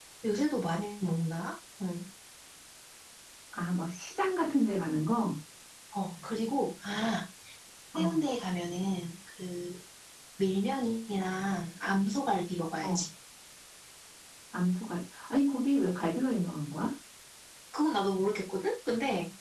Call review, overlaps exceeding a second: none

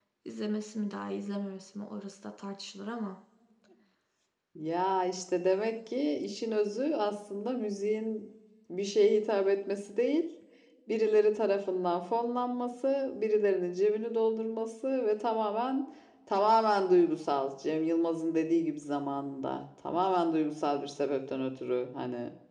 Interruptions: none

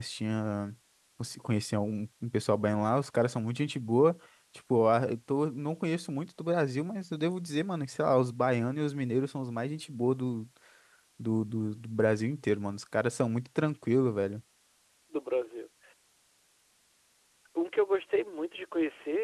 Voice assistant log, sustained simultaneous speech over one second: none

